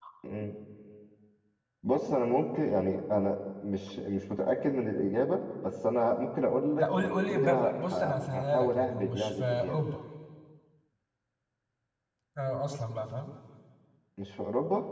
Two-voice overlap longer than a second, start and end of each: 6.8-9.8

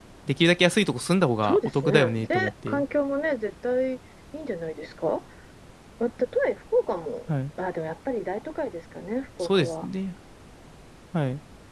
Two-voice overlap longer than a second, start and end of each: 1.4-2.8

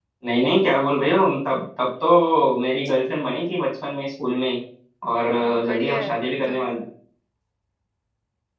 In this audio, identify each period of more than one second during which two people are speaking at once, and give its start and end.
5.3-6.6

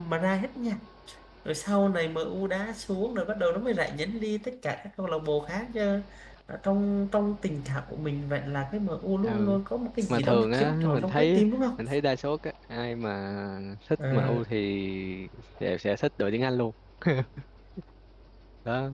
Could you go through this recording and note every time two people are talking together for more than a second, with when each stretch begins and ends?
10.1-11.4

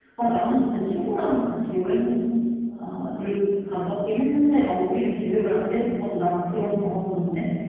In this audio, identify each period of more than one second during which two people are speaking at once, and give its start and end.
none

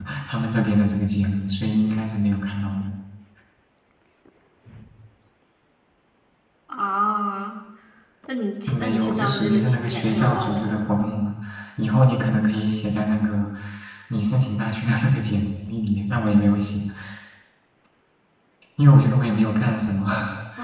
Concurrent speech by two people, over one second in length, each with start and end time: 8.7-10.9

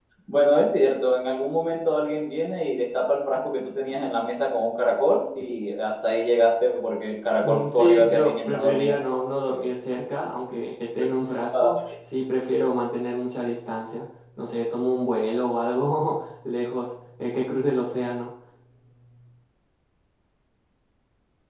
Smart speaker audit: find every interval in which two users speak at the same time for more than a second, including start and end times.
7.4-9.0

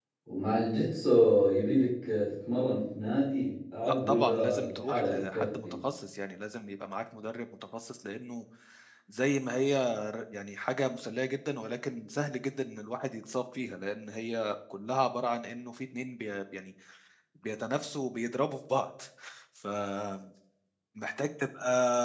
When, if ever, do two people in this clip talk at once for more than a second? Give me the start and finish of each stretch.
3.8-5.8

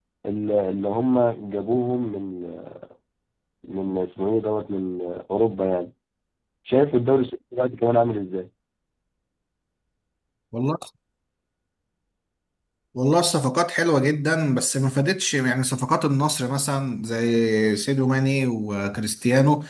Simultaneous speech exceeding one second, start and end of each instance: none

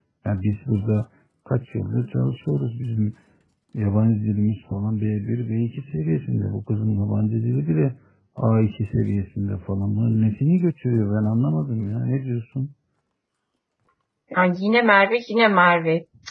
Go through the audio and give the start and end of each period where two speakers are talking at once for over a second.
none

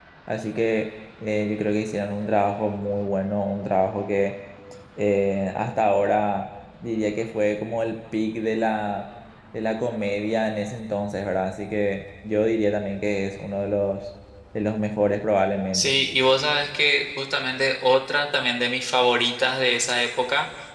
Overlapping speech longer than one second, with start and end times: none

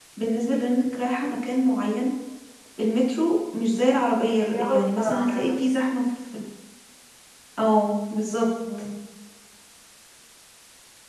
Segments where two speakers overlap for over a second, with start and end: 4.2-5.7

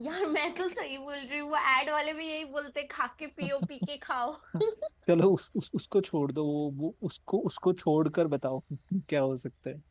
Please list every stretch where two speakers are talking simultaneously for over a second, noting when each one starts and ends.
none

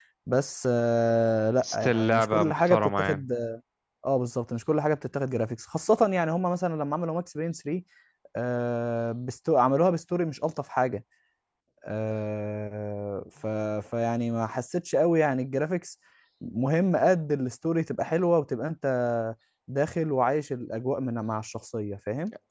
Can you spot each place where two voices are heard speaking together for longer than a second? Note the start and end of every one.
1.6-3.3

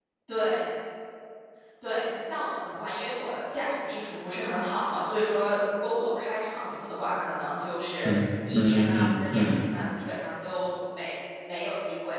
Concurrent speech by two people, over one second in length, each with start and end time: 8.1-9.7

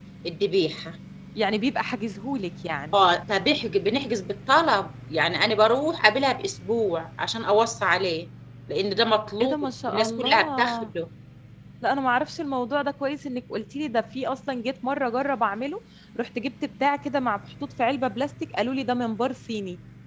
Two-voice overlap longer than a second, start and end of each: 9.4-10.9

